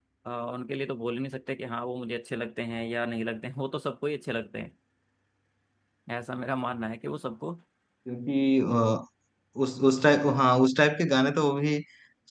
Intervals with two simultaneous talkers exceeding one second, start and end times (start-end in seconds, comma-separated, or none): none